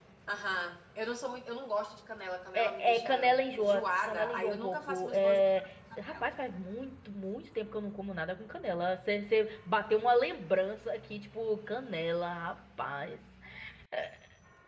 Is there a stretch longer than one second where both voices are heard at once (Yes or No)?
Yes